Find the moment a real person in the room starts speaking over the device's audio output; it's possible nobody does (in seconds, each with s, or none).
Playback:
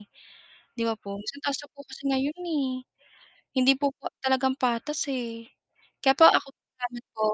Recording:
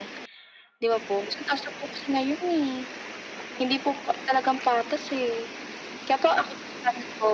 none